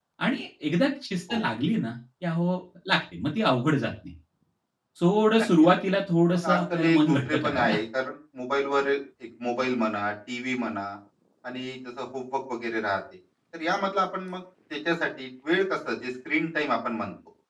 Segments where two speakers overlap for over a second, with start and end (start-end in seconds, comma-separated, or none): 6.3-7.8